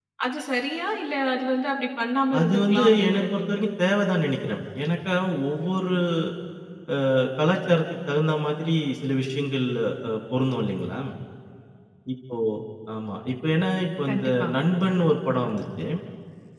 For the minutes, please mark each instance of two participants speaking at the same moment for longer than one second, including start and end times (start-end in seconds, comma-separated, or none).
2.4-3.6